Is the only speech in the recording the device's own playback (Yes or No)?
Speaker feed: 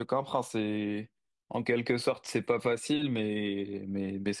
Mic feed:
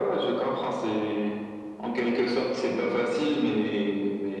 Yes